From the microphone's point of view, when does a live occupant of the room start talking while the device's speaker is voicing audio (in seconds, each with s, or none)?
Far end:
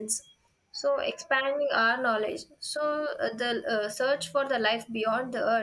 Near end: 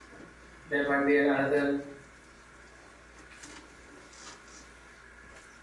0.7 s